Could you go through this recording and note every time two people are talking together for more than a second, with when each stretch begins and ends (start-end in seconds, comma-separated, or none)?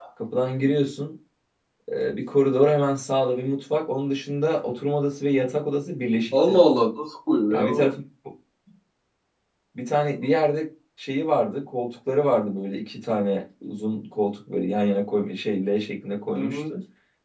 none